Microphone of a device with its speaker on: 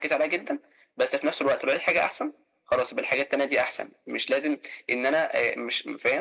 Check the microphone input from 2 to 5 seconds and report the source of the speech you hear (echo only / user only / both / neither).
echo only